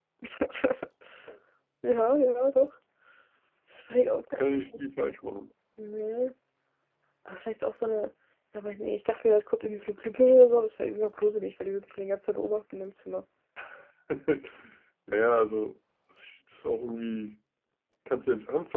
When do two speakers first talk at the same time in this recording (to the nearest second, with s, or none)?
none